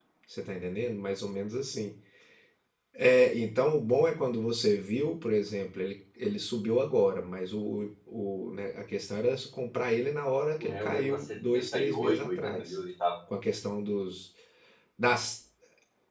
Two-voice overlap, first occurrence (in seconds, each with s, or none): 10.6 s